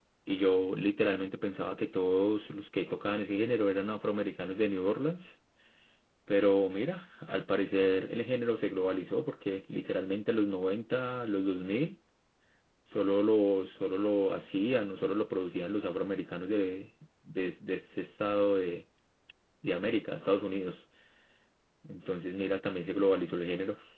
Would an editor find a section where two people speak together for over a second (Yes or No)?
No